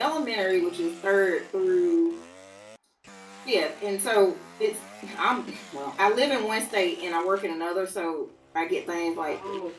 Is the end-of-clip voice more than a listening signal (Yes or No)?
No